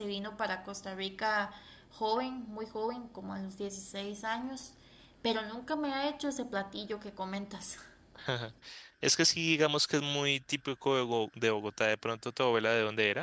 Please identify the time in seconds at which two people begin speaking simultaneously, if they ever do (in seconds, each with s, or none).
none